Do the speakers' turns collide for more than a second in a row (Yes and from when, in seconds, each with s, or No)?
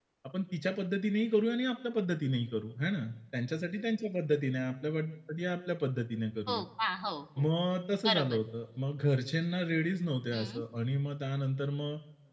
No